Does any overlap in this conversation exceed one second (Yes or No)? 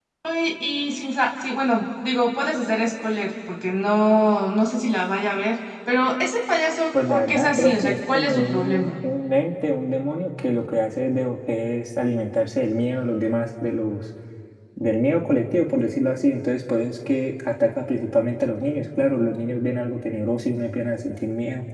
Yes